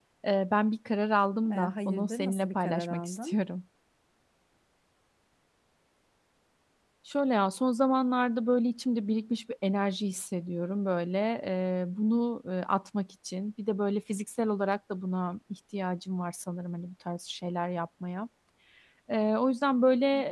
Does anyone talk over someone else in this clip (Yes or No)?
Yes